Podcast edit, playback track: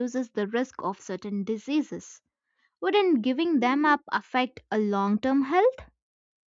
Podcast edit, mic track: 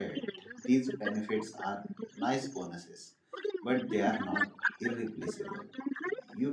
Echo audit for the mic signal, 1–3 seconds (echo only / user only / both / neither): both